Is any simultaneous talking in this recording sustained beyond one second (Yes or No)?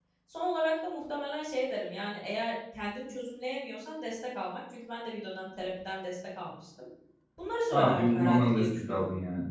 Yes